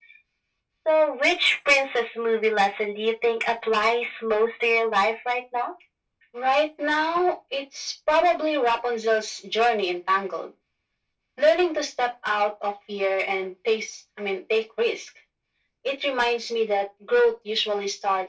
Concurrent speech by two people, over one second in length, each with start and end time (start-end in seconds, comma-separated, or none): none